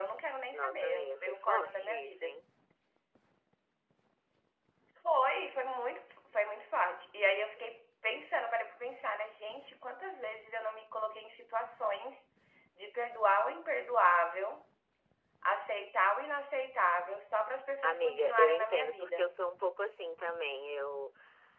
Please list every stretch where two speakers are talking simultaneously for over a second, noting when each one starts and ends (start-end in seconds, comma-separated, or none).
0.5-2.4, 17.8-19.4